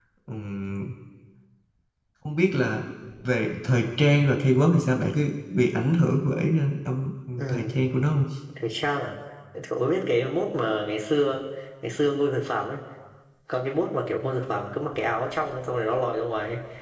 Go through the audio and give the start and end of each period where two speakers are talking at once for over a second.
none

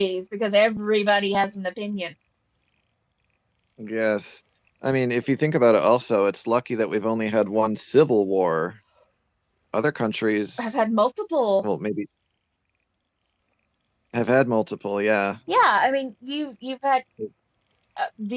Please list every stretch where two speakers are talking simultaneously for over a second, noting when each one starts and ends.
none

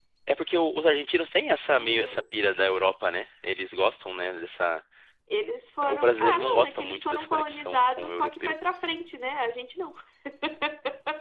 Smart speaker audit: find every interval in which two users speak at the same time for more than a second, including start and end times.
5.9-8.5

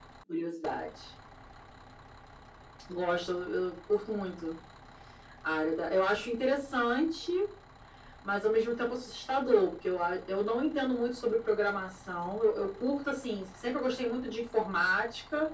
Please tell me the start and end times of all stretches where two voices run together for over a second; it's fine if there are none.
none

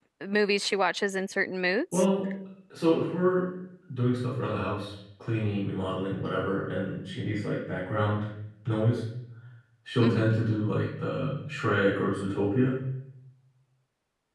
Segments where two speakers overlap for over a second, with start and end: none

